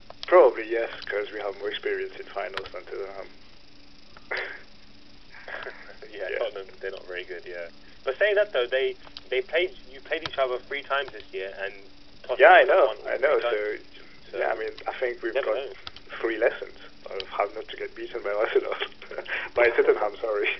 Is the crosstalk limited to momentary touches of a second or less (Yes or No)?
No